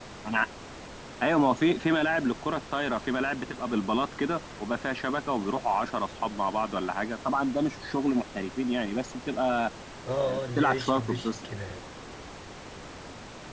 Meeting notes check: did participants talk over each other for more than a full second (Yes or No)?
Yes